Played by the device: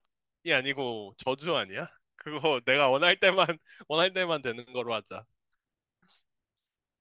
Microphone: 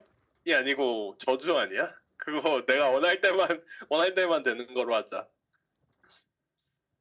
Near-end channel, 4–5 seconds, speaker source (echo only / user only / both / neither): echo only